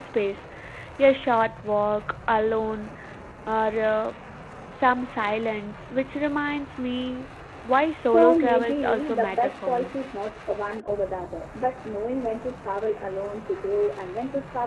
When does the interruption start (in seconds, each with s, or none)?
8.1 s